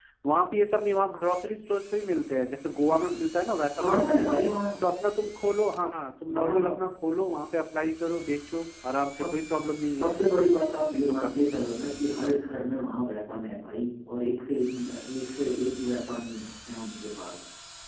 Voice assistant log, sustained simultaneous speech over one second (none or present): none